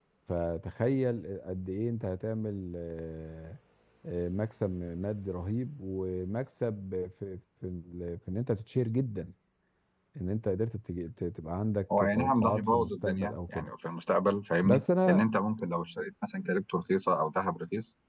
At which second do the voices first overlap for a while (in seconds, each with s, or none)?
12.0 s